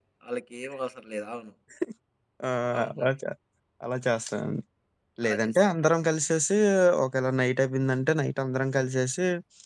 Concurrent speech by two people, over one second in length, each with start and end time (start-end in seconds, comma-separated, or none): none